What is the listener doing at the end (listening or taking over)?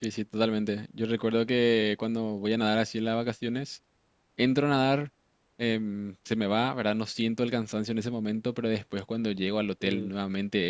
listening